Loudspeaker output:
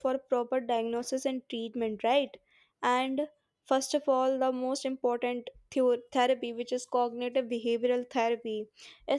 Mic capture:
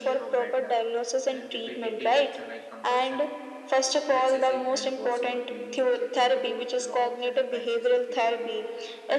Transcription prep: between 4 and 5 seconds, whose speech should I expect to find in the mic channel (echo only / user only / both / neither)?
both